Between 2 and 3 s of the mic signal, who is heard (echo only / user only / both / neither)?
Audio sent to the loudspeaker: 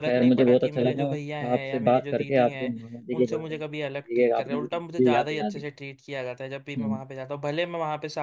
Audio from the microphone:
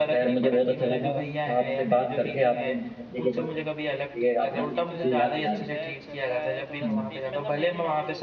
echo only